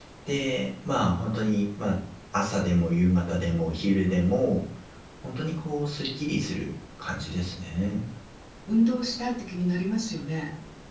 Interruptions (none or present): none